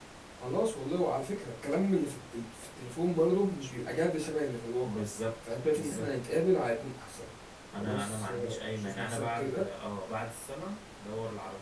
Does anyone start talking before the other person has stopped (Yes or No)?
Yes